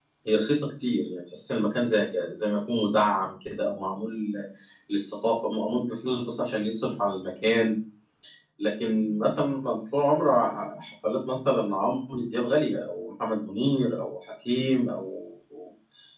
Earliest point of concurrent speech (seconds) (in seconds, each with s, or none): none